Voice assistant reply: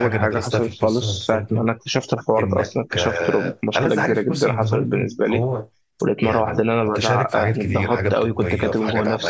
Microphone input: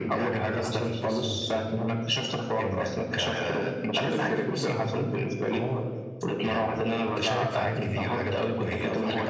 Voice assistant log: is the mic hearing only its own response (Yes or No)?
Yes